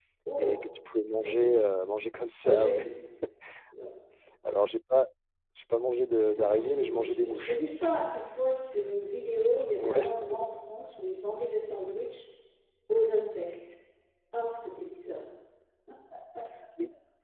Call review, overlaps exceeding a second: present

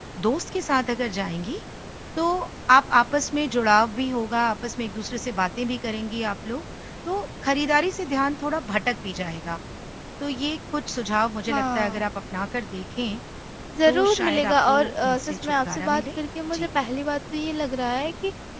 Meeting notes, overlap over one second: present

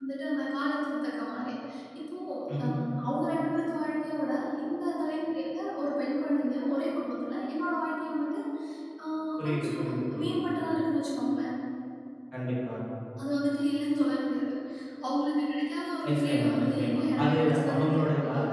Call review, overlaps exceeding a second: present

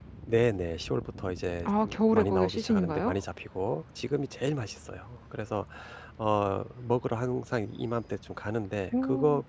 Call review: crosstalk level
present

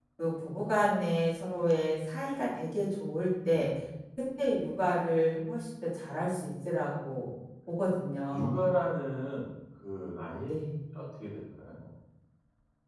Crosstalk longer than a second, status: none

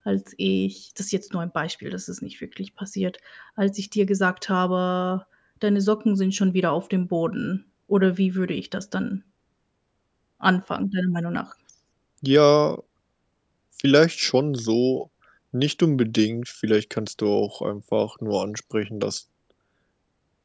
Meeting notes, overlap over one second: none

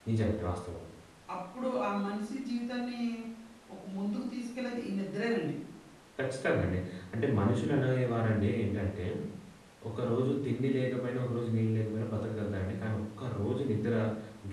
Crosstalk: none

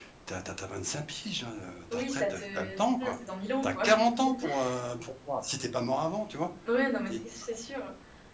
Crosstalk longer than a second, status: present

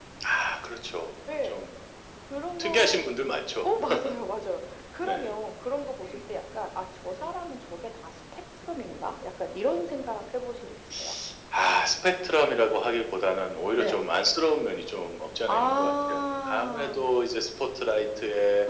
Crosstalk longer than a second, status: present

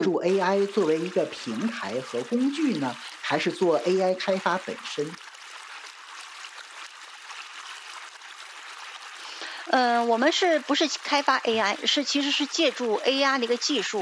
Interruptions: none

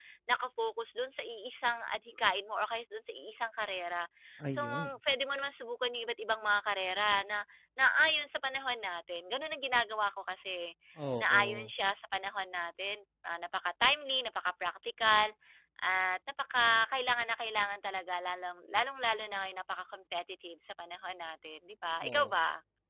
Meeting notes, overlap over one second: none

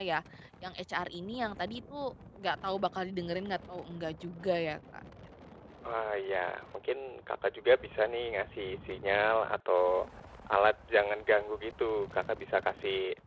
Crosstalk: none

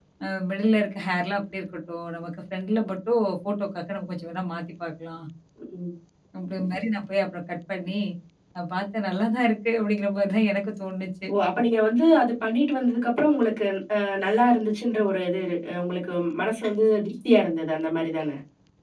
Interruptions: none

